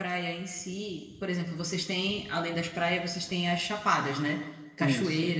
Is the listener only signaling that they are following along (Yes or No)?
Yes